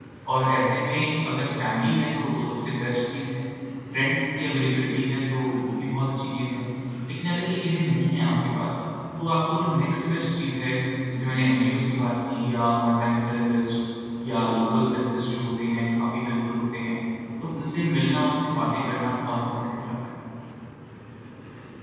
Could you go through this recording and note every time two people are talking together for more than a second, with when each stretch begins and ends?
none

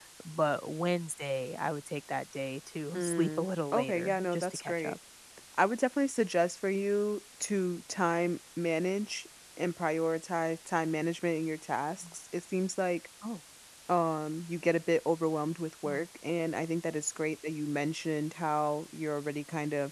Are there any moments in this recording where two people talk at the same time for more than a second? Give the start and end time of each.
2.9-4.9

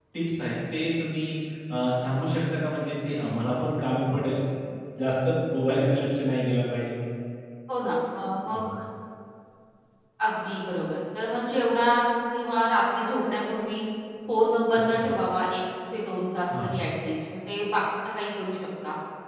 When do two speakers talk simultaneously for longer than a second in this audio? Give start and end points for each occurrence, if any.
none

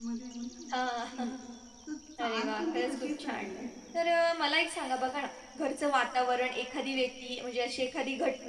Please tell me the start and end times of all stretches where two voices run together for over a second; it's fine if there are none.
2.2-3.5

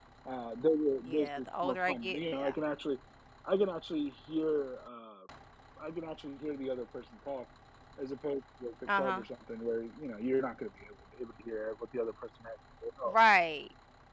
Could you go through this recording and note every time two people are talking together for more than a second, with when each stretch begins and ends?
1.0-2.5

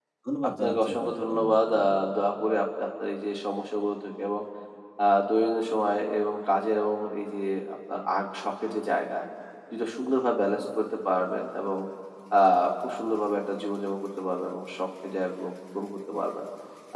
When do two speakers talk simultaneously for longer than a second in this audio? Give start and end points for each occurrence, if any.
0.6-1.9

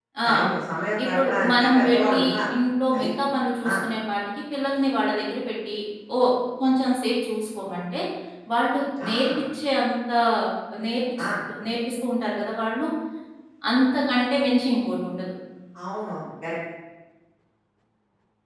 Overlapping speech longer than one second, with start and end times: 1.0-2.4

